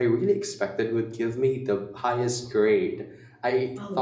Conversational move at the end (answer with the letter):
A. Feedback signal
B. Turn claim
A